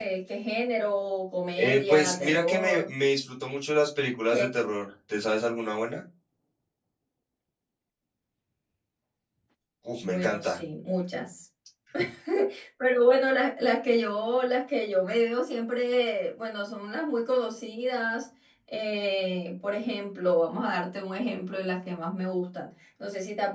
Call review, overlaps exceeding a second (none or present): present